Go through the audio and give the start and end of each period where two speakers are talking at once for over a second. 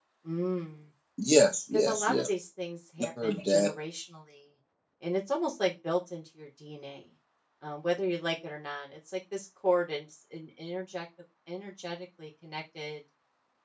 none

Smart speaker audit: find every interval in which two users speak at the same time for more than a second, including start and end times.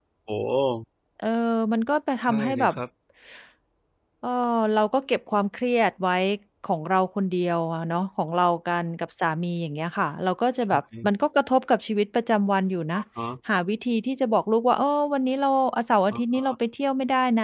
none

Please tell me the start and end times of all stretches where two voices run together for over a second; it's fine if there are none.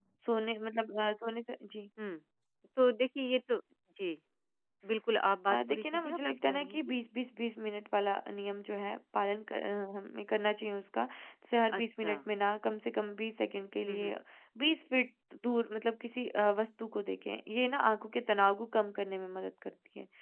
5.5-6.8

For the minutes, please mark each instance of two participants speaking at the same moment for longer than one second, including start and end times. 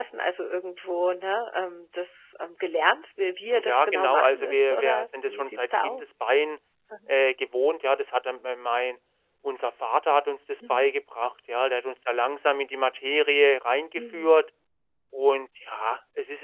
3.6-6.0

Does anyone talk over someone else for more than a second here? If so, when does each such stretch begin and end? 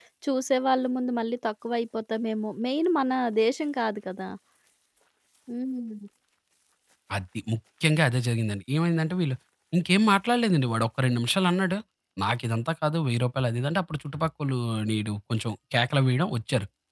none

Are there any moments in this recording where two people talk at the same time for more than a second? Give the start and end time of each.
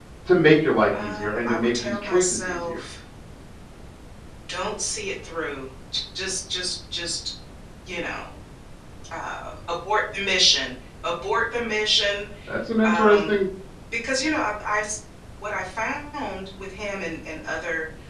1.0-2.8

